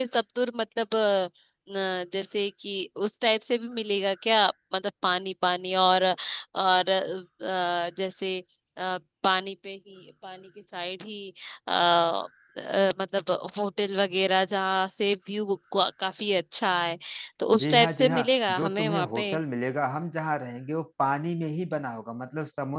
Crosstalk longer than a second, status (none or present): present